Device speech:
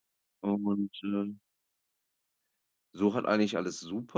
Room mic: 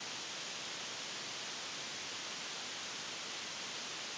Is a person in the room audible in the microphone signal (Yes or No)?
No